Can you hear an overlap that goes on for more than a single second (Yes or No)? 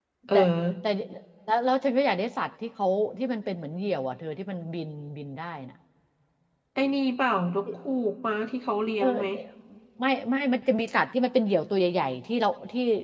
No